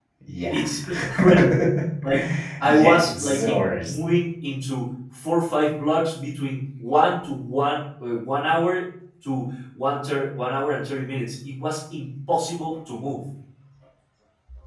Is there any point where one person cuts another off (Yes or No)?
Yes